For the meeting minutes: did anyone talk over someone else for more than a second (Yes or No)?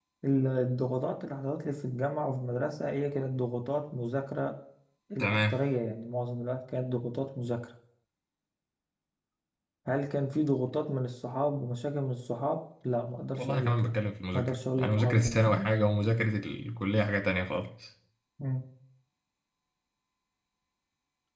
Yes